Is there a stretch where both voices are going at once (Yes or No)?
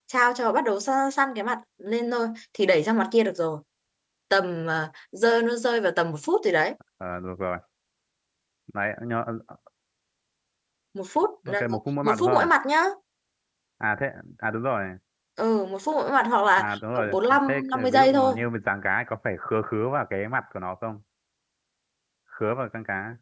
Yes